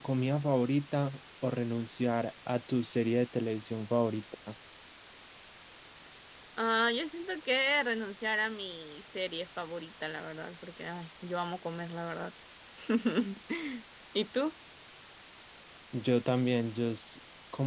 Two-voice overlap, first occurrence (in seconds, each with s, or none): none